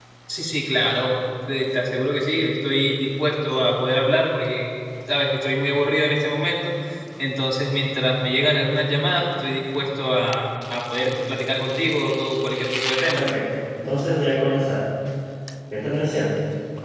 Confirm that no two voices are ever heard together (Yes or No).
Yes